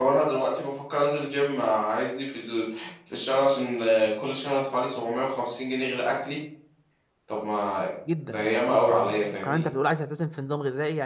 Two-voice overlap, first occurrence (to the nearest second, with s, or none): 8 s